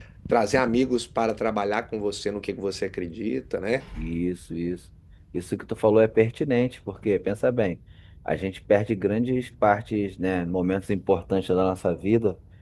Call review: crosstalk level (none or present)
none